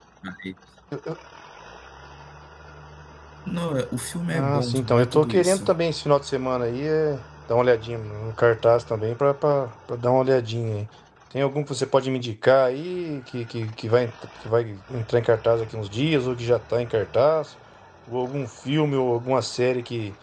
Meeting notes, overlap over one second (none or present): present